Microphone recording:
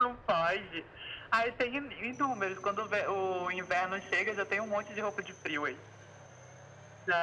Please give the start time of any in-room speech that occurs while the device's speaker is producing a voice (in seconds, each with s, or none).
none